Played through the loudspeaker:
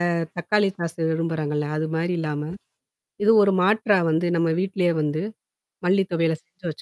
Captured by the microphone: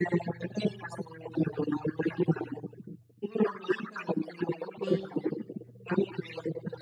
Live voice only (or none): ம், ம்.